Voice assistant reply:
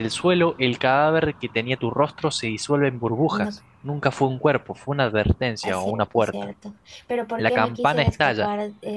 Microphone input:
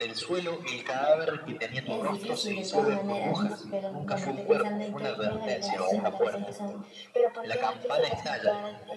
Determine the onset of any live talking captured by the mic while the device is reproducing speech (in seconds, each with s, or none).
1.8 s